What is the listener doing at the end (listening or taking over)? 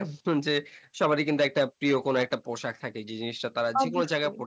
listening